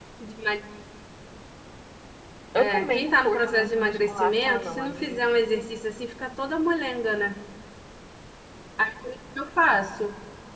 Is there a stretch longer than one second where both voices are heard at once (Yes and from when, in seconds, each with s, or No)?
Yes, from 2.6 s